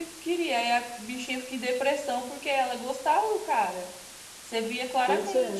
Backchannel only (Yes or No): Yes